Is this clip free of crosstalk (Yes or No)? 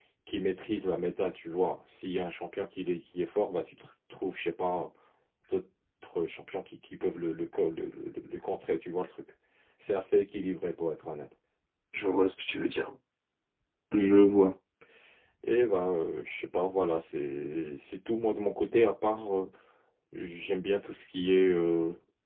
Yes